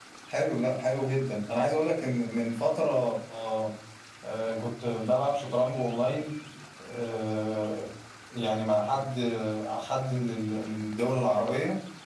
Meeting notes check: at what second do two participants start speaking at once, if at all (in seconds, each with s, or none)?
none